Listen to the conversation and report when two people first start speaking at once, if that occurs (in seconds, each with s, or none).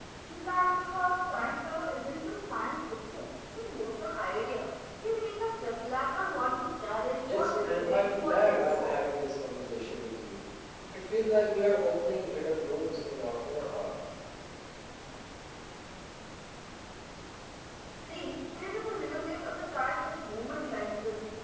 7.3 s